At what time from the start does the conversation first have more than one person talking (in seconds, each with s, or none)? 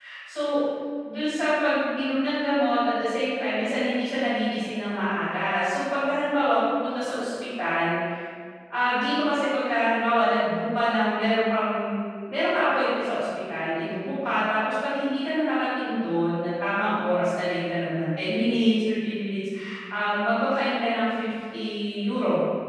none